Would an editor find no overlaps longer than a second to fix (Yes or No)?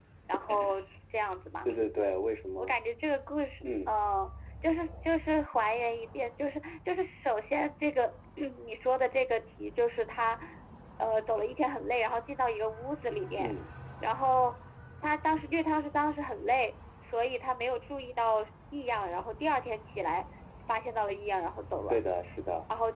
Yes